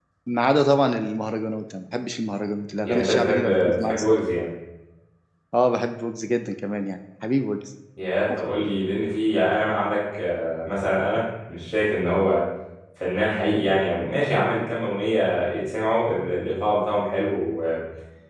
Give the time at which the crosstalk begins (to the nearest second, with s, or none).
3 s